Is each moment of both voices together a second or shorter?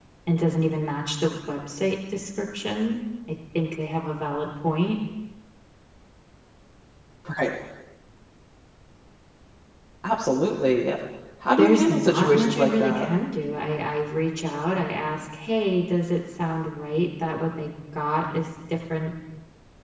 No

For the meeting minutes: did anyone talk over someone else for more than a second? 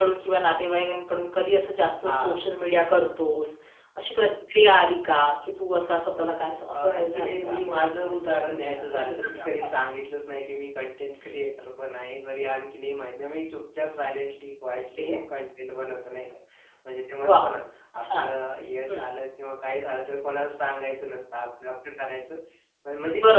Yes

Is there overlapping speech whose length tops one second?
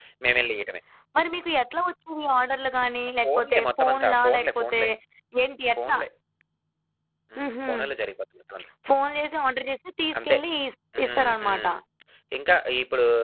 Yes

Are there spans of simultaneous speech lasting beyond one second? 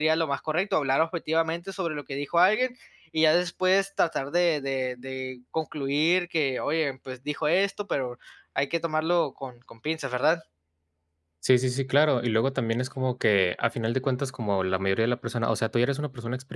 No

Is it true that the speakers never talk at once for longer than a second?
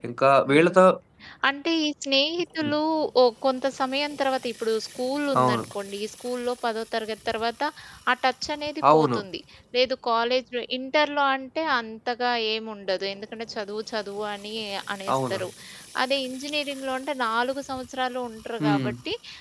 Yes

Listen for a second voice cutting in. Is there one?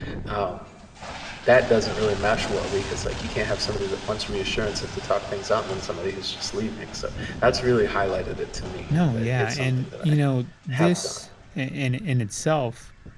Yes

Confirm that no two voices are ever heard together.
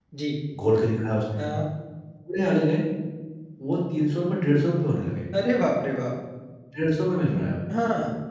Yes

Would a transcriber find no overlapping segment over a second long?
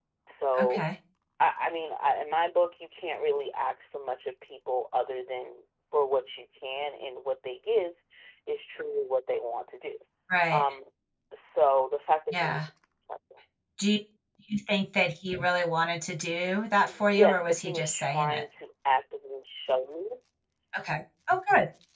No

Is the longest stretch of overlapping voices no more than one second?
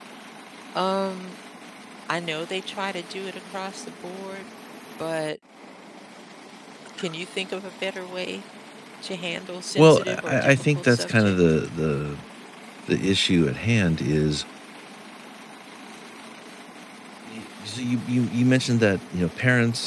No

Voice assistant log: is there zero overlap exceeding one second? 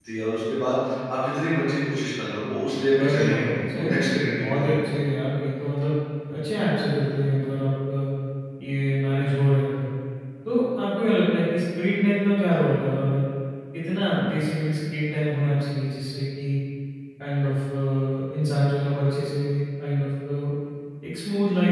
No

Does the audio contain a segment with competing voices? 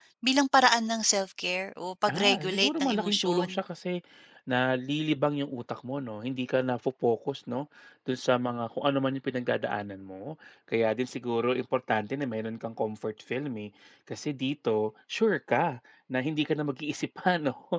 Yes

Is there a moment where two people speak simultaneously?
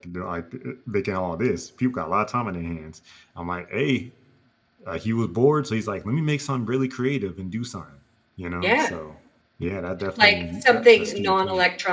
Yes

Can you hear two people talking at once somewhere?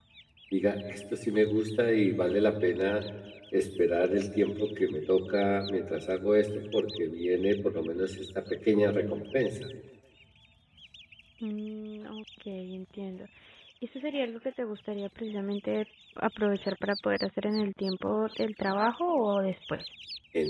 No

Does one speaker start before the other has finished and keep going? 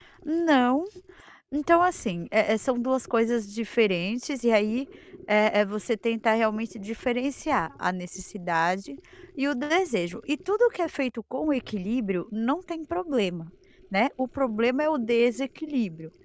No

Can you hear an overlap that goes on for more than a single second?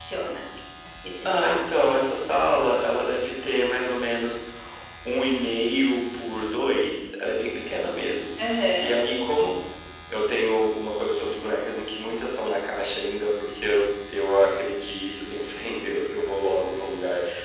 No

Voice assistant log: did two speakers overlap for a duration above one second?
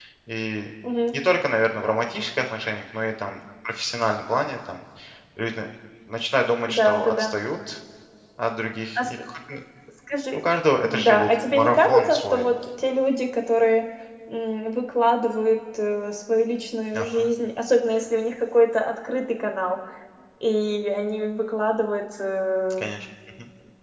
Yes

